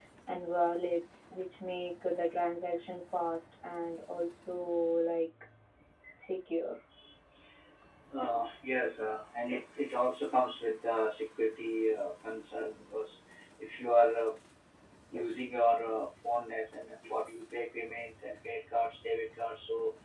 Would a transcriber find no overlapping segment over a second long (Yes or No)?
Yes